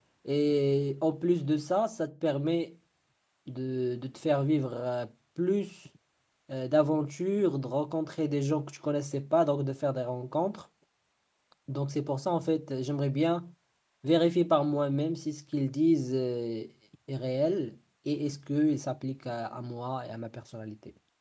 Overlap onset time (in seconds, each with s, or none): none